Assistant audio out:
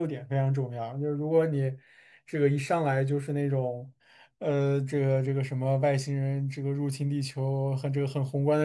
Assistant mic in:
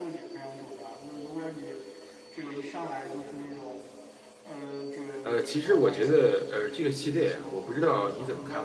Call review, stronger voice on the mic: user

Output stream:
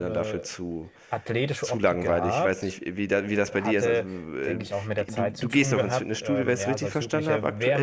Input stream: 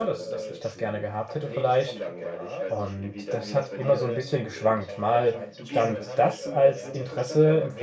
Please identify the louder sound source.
user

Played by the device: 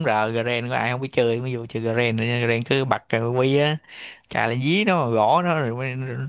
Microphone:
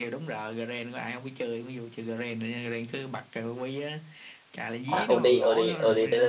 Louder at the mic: user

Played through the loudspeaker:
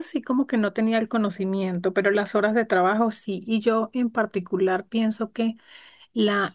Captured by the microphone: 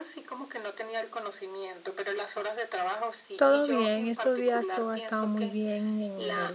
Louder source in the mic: user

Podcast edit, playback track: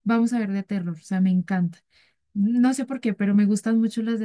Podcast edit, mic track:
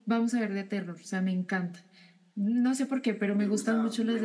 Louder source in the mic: echo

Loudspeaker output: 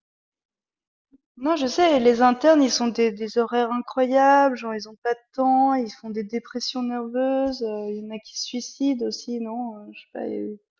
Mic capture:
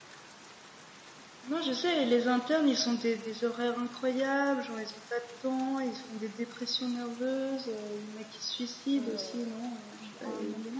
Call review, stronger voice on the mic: echo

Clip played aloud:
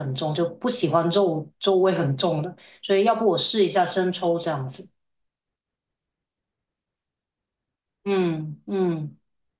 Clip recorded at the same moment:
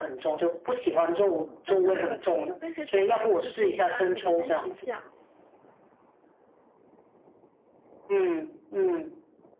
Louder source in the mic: echo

